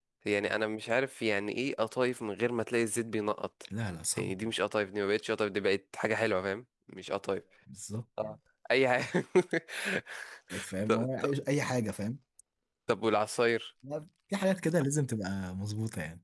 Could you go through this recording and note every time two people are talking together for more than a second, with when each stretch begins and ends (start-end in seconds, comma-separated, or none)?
none